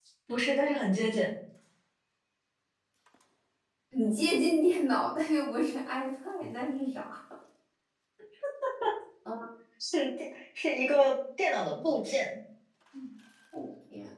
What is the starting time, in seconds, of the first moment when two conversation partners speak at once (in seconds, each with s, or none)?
none